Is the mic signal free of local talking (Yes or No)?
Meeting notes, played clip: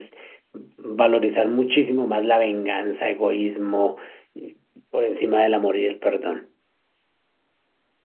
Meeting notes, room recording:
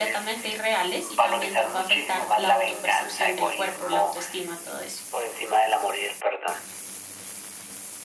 No